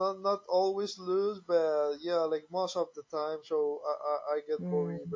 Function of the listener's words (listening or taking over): listening